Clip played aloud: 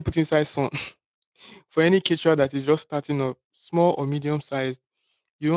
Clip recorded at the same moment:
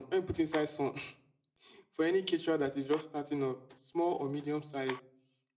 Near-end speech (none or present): none